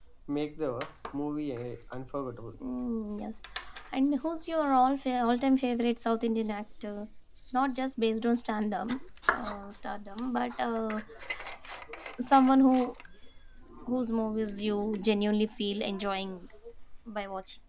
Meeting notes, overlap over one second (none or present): none